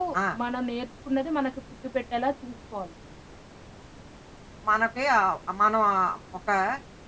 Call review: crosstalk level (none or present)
none